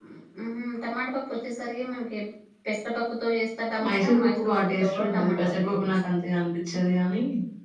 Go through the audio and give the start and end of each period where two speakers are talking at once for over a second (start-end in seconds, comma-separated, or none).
3.8-5.9